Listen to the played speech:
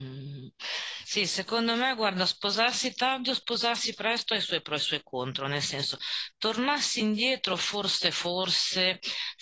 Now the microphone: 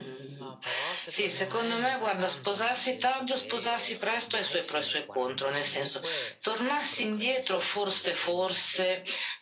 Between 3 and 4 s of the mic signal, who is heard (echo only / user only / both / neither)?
both